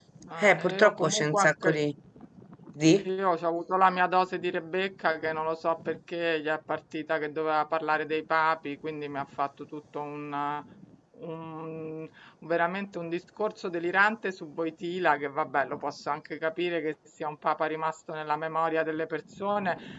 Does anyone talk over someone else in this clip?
Yes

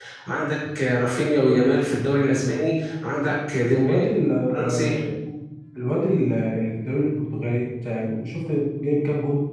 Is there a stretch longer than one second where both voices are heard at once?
No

